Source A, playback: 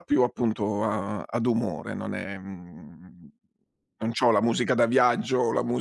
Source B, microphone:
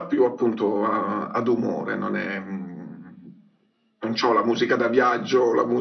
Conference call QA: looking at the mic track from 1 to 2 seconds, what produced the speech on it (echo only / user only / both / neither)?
echo only